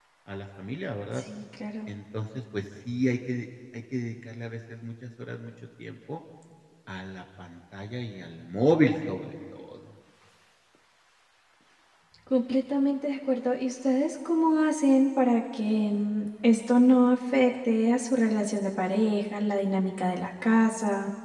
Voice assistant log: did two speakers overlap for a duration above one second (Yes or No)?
No